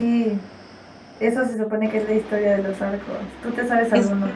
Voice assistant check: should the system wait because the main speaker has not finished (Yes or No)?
No